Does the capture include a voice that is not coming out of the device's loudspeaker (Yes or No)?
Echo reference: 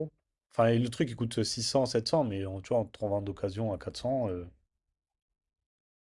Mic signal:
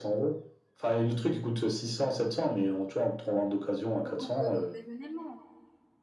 Yes